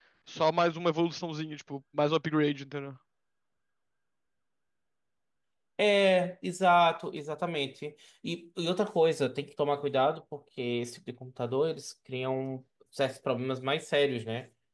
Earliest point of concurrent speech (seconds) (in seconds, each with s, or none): none